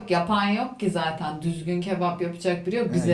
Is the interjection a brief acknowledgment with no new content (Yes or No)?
No